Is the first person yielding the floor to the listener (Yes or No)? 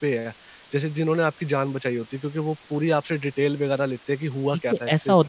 Yes